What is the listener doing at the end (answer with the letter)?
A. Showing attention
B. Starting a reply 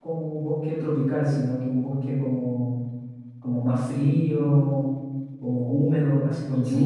A